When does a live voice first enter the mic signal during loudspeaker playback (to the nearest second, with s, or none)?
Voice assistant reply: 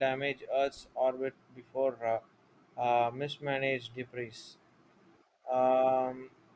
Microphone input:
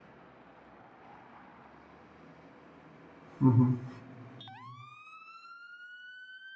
3 s